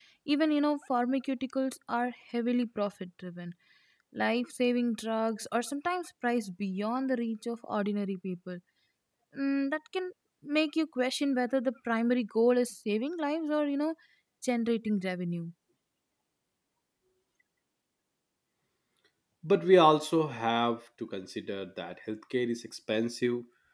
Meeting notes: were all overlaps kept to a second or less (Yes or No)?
Yes